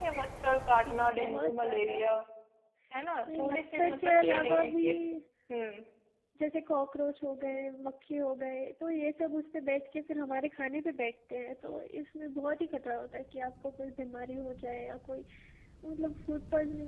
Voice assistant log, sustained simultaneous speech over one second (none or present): present